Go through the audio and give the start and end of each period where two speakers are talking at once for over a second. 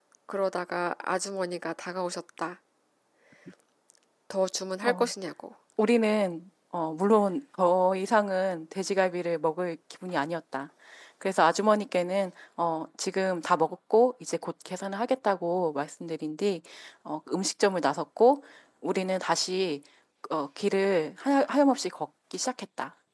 none

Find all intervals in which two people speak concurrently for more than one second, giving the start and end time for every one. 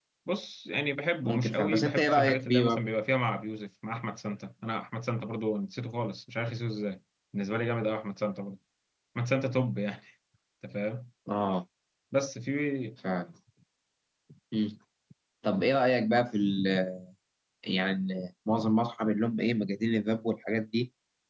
1.2-2.8

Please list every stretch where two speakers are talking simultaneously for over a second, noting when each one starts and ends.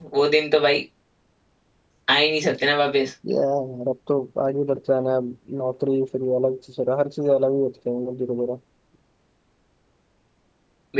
none

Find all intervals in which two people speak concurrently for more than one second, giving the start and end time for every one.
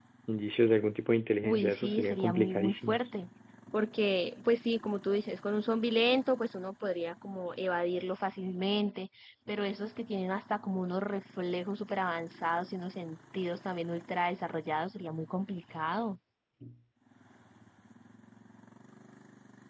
1.4-3.1

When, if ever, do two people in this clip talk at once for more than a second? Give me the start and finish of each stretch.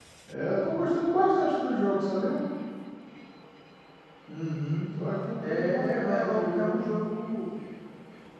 5.4-6.8

